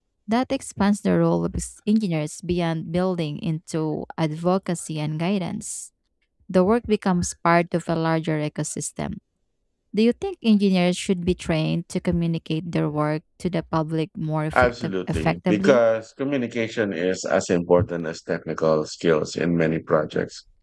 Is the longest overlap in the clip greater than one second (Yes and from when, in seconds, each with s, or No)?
Yes, from 14.5 s